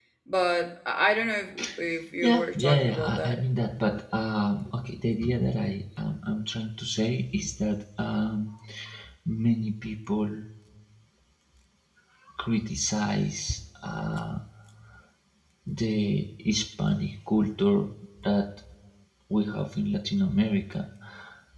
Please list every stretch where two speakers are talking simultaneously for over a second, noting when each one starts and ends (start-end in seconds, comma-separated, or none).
2.2-3.4